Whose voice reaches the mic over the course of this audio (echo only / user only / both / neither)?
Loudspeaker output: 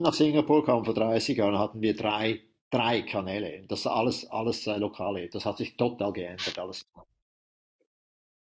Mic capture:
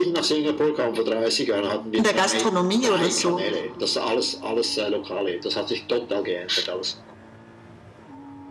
both